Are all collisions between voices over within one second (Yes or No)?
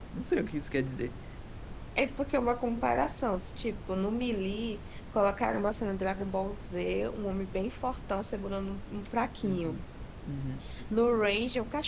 Yes